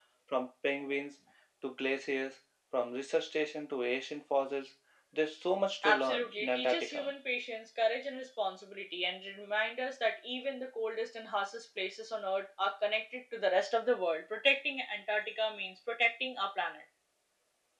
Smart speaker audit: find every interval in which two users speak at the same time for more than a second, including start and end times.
5.8-7.1

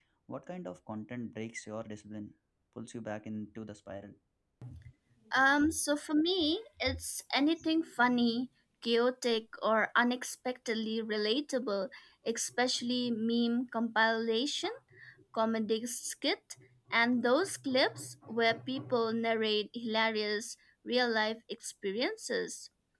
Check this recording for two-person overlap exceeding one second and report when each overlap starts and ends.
none

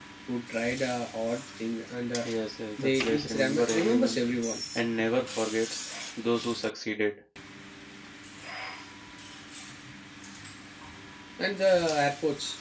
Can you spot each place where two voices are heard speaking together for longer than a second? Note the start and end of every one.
2.8-4.2

